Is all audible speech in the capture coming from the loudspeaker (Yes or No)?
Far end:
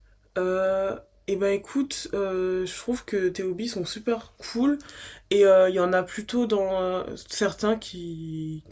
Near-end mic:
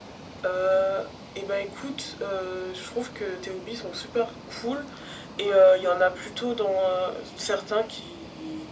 Yes